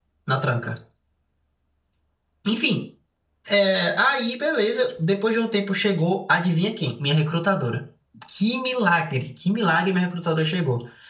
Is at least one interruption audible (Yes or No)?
No